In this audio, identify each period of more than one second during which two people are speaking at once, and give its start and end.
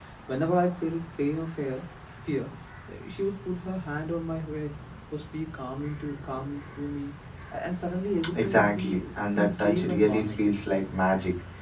8.3-10.5

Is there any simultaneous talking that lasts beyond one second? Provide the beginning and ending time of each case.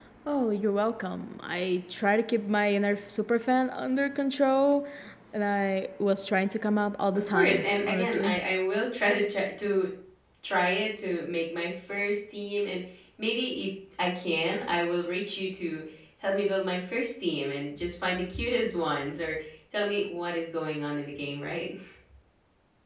7.1-8.4

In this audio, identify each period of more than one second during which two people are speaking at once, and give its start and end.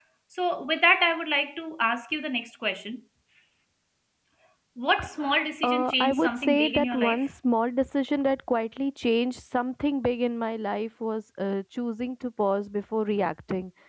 5.6-7.3

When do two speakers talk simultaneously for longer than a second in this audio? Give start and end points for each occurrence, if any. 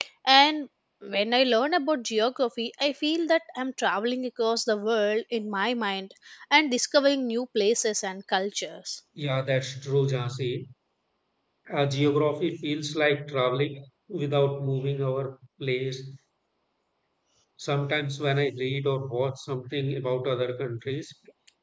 none

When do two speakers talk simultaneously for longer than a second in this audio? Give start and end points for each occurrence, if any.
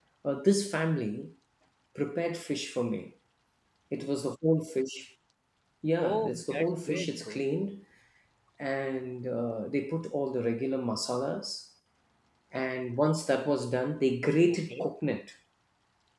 6.0-7.4

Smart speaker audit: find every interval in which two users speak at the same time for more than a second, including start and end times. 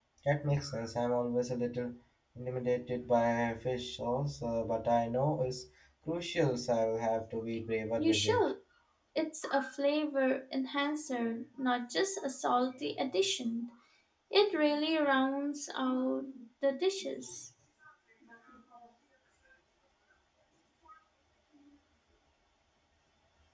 none

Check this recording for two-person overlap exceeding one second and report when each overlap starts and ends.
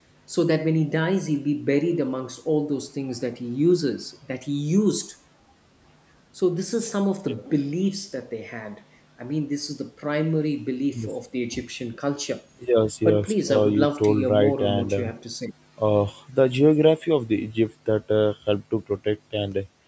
13.1-15.1

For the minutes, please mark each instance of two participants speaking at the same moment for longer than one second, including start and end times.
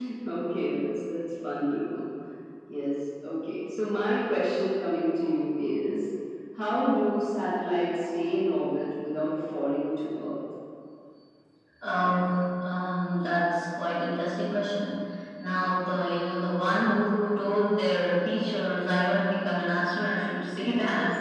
none

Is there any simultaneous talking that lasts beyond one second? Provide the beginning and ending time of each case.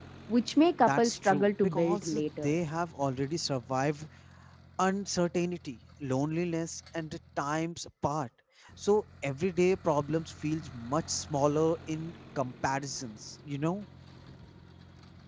0.8-2.6

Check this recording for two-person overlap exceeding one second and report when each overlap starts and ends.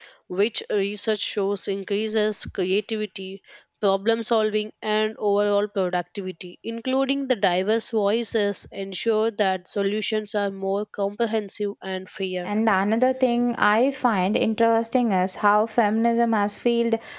none

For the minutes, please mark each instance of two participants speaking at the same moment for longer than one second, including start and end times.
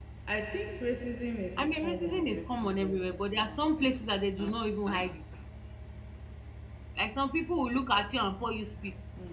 1.6-3.7

